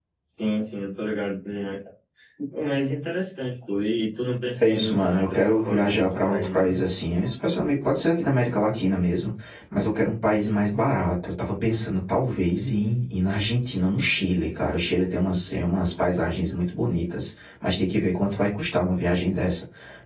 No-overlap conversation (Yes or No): No